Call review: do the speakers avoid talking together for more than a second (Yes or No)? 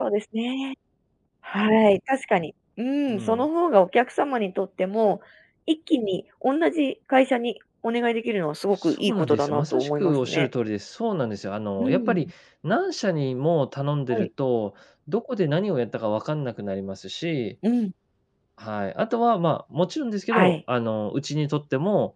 No